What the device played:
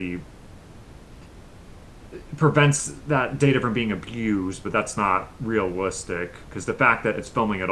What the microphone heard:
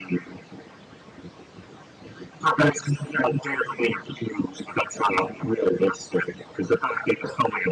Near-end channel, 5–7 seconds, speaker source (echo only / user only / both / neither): echo only